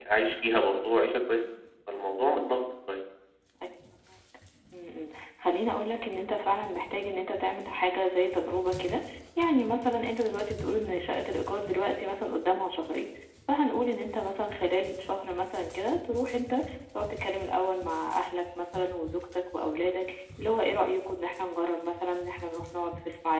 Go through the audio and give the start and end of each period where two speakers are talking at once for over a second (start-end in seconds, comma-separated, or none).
none